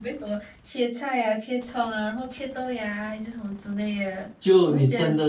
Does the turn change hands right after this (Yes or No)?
Yes